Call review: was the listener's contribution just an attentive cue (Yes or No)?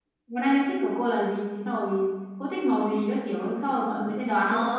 No